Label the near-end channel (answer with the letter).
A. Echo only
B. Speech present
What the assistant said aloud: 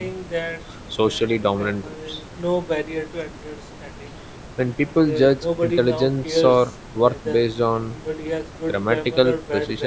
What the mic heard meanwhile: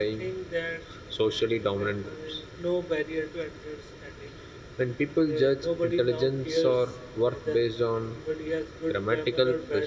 A